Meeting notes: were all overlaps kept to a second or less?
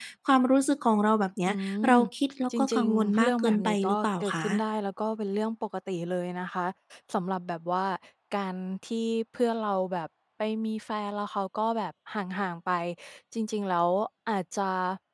No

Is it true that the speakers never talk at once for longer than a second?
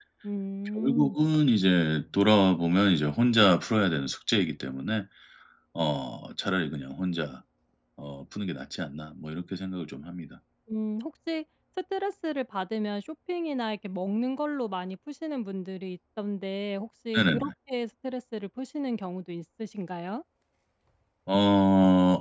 Yes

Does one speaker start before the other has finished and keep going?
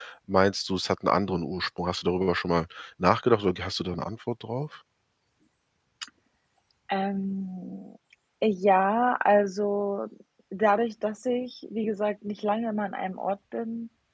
No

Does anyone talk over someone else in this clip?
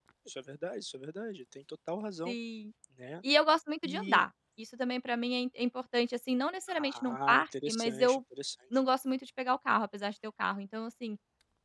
Yes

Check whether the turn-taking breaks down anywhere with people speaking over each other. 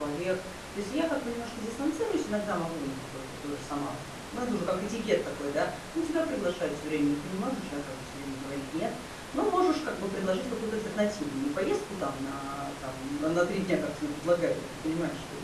No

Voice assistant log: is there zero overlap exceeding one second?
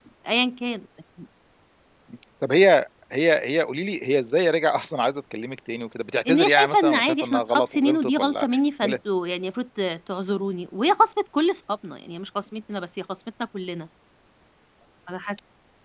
No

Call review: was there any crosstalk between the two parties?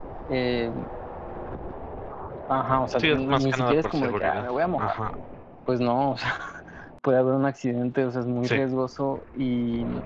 Yes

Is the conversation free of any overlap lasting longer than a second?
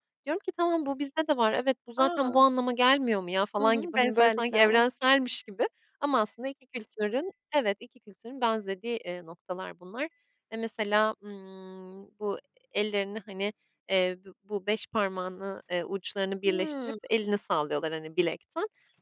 No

